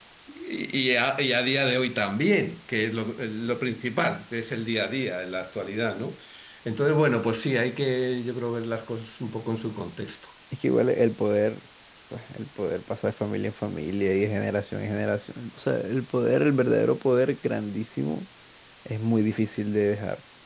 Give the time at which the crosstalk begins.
none

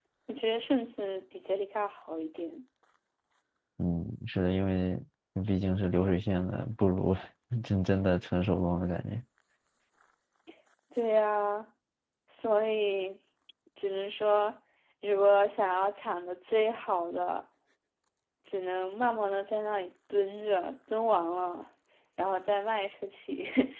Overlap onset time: none

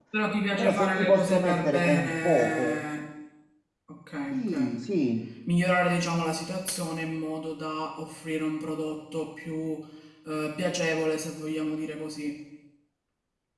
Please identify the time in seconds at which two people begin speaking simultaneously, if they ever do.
0.6 s

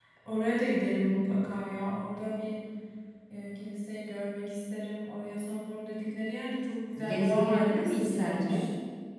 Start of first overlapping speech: 7.0 s

